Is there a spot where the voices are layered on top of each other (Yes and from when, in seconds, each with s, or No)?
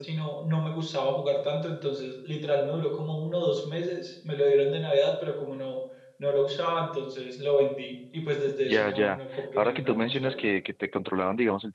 Yes, from 8.6 s